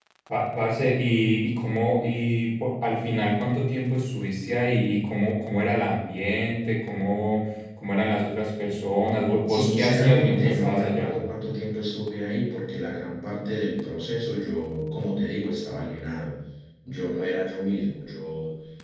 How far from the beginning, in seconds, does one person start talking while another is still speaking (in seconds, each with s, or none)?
9.5 s